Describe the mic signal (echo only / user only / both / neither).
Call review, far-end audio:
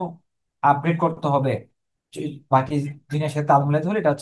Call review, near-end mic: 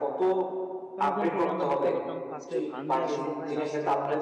both